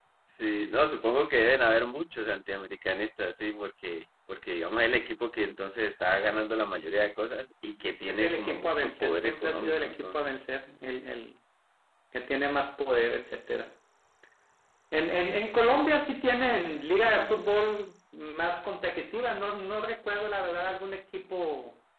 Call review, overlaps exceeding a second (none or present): present